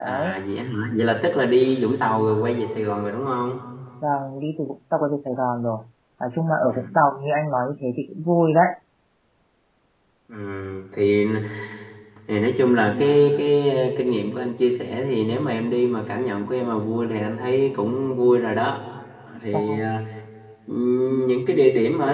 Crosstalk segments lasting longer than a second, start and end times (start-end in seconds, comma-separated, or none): none